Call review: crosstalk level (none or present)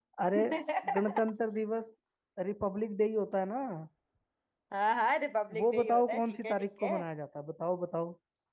present